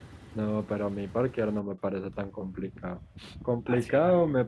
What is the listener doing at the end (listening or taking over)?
listening